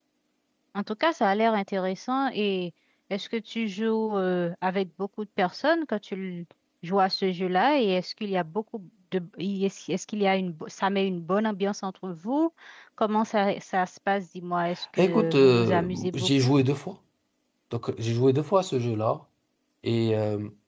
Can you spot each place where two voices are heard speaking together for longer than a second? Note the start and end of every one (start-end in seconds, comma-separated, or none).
15.0-16.5